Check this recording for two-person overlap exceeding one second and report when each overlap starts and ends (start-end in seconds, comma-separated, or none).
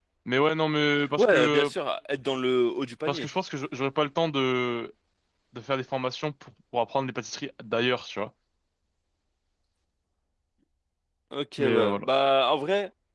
none